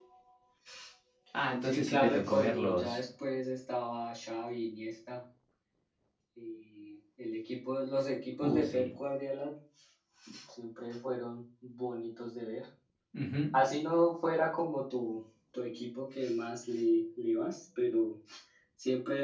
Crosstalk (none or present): present